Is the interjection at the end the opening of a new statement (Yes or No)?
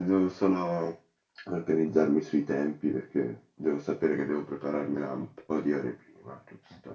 Yes